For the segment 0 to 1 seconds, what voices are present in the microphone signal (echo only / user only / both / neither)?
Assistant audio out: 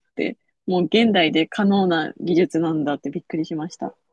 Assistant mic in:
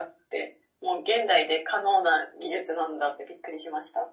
echo only